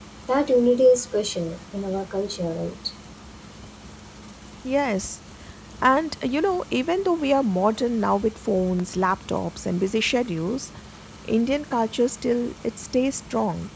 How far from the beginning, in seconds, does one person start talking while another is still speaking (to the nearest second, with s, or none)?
none